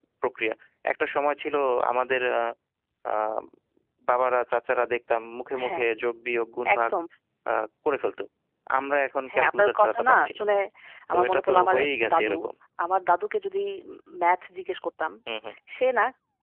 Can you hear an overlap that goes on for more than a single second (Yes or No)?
Yes